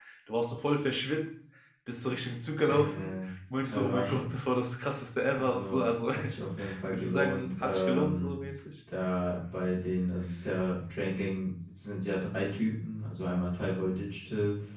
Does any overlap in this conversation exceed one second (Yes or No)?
Yes